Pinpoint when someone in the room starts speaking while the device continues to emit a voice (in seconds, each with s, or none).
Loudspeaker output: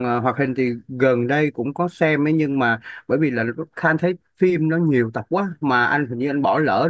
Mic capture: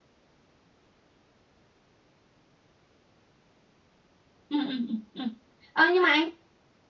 4.5 s